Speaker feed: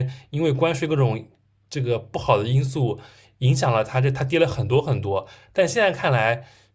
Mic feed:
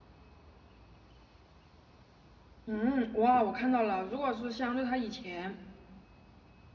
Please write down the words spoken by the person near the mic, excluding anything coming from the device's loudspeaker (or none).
嗯，哇，我看到了，如果是相对它以前，